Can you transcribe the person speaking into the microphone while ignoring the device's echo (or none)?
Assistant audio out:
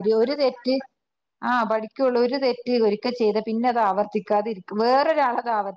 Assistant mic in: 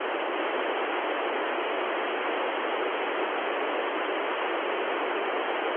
none